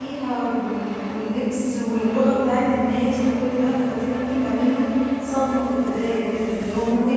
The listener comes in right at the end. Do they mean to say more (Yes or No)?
No